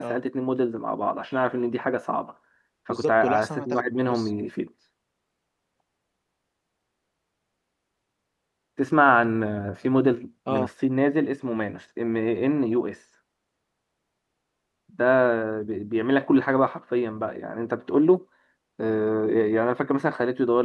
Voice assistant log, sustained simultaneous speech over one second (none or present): present